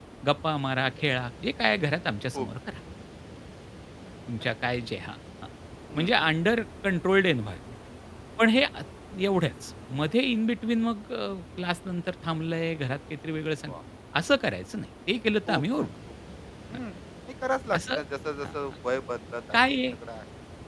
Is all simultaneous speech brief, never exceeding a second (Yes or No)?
Yes